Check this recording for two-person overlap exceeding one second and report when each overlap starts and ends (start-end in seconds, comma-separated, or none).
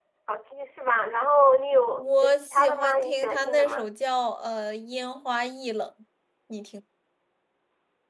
2.0-3.9